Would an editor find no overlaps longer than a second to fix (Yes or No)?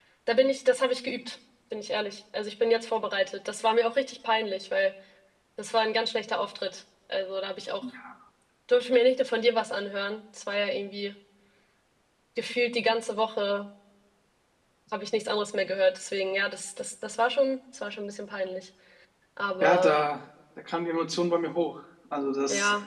Yes